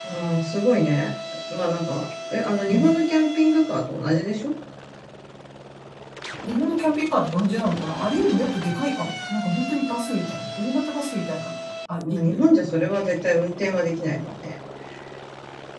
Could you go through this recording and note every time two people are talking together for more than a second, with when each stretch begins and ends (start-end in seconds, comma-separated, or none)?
none